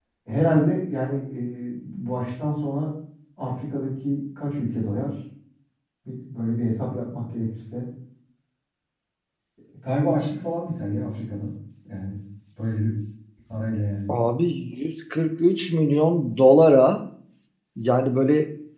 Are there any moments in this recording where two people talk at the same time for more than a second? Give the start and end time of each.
none

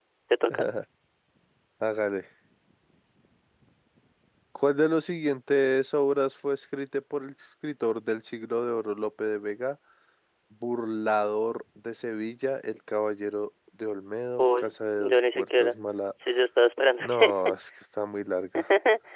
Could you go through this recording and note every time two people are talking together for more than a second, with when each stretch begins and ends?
14.4-15.8

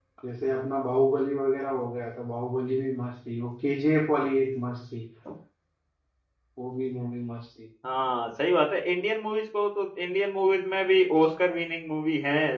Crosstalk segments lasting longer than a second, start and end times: none

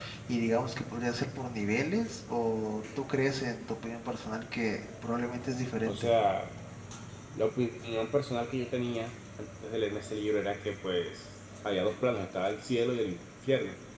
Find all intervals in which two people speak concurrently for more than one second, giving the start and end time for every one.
none

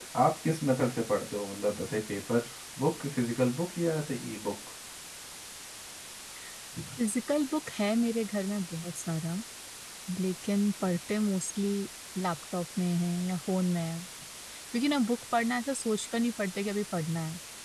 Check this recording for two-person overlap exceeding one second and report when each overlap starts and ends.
none

